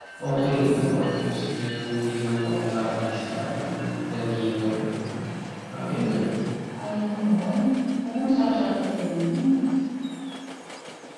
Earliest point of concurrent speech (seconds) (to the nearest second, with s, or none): none